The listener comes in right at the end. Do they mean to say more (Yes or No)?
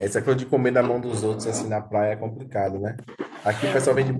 No